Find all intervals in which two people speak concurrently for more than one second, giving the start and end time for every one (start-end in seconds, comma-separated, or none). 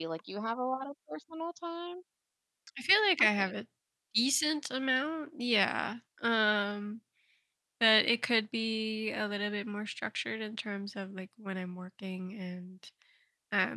none